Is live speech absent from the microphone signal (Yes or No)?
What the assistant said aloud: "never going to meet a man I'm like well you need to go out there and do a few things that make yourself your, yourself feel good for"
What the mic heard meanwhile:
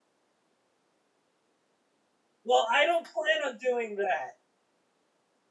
No